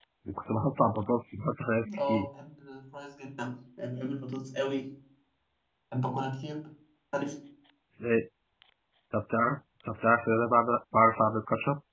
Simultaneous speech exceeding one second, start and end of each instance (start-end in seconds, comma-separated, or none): none